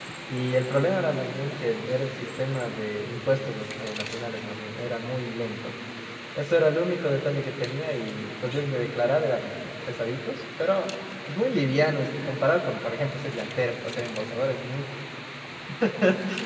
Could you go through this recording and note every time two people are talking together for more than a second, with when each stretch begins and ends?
none

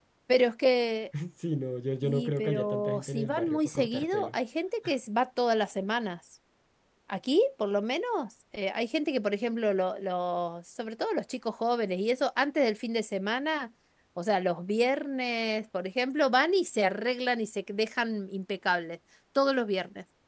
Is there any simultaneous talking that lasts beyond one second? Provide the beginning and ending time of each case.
2.1-4.3

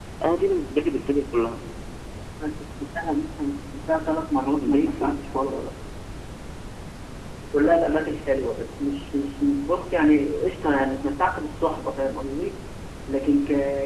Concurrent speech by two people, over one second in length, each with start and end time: none

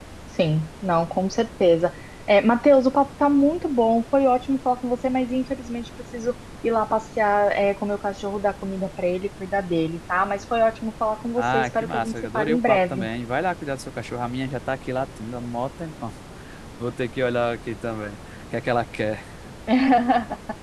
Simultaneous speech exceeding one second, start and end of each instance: 11.4-13.1

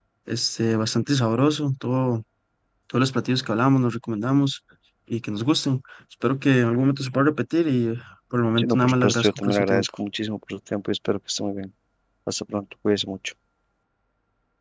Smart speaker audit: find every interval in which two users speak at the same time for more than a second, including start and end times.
8.6-9.9

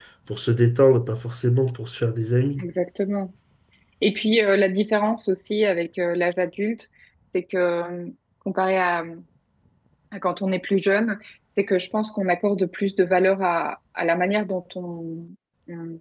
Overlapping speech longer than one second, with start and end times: none

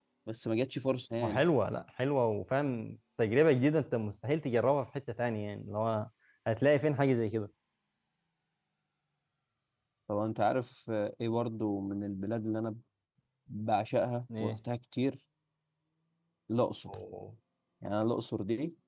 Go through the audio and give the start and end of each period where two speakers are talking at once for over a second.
none

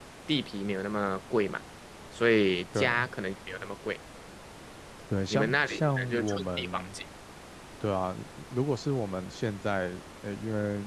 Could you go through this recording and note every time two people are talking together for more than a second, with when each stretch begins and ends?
5.3-6.8

